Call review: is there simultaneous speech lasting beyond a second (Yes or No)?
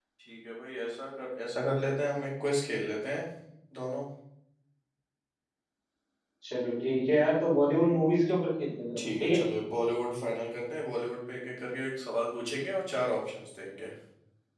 No